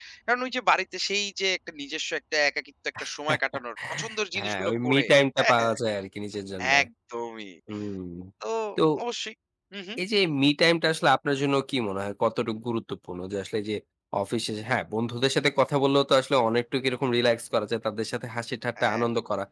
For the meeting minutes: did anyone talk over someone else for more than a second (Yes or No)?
Yes